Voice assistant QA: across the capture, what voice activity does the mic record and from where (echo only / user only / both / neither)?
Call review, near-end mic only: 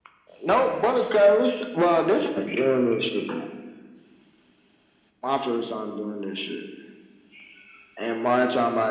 echo only